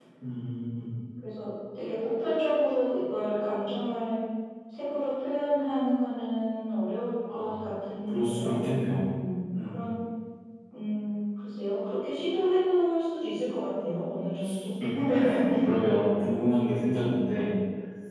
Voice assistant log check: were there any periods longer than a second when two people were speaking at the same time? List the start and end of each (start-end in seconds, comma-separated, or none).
none